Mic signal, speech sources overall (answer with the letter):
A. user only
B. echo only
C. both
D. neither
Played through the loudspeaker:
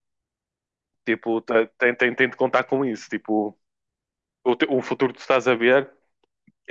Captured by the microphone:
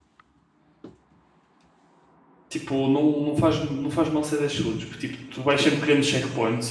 A